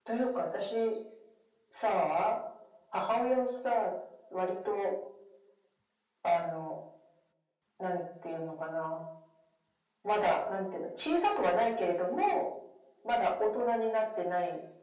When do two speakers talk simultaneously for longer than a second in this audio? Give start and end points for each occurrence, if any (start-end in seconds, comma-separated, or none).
none